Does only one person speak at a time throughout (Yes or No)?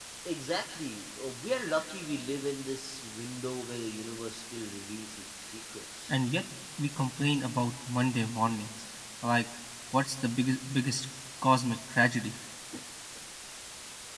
Yes